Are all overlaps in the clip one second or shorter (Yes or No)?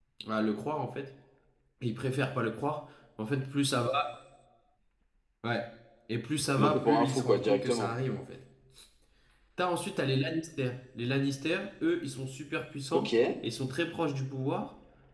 No